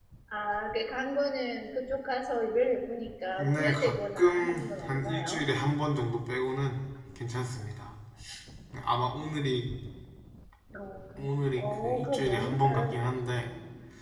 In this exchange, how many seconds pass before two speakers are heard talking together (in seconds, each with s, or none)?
3.4 s